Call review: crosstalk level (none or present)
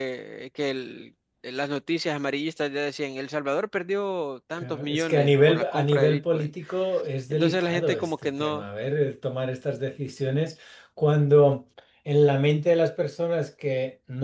present